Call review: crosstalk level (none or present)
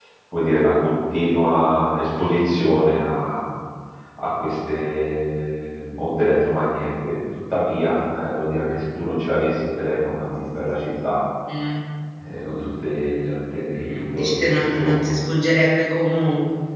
present